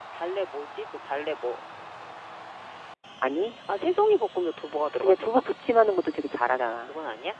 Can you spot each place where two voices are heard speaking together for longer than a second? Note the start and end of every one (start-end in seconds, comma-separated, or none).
none